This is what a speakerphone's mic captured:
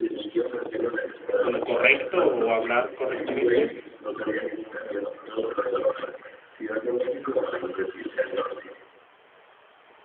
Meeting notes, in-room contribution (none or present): present